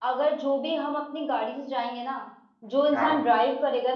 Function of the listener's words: listening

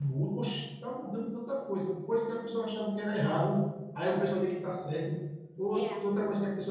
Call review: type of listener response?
listening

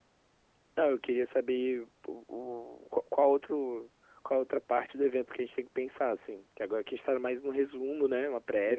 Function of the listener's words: taking over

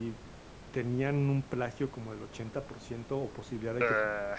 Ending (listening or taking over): listening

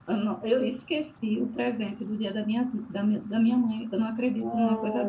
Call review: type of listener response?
taking over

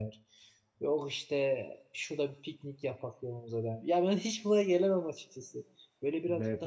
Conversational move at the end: listening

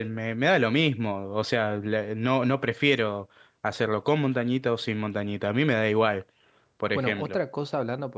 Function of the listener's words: taking over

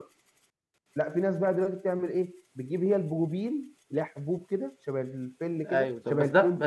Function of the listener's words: taking over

